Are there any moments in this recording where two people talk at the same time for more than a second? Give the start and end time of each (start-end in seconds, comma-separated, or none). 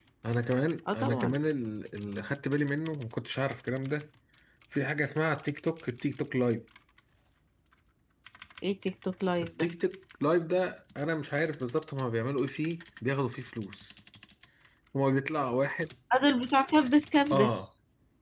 none